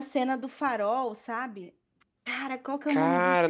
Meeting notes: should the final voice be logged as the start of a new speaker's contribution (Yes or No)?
Yes